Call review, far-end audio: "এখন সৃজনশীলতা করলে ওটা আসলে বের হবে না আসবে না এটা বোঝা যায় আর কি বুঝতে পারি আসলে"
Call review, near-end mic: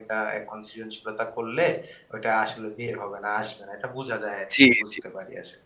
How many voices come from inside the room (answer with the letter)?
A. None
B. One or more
B